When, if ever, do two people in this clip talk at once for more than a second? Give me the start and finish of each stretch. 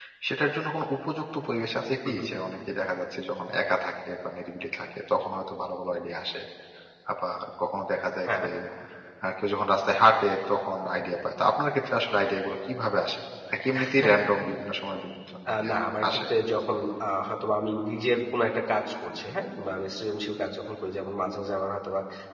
none

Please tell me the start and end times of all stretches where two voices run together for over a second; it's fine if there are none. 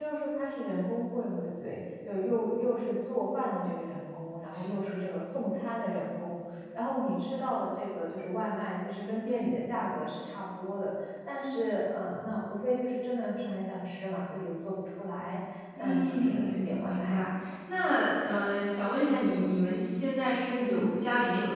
15.8-17.2

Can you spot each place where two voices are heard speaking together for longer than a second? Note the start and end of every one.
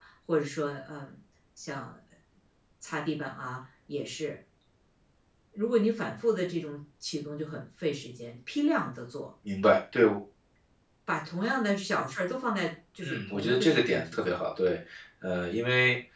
13.0-14.4

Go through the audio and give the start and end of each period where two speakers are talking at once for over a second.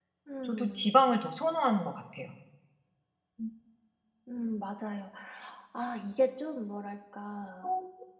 none

